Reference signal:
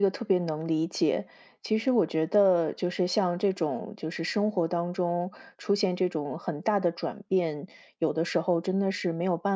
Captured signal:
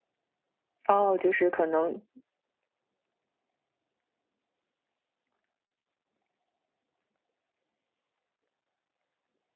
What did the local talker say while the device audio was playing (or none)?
哦，就是可能